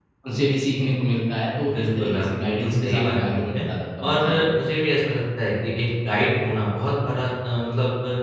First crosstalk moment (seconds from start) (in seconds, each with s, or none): 1.7 s